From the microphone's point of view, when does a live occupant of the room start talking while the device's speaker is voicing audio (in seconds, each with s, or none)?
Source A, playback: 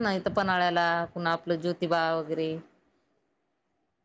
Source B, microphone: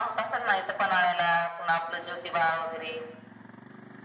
none